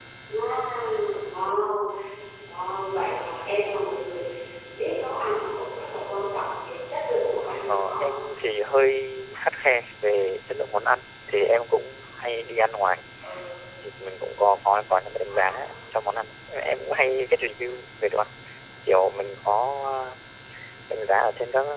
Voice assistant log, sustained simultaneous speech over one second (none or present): none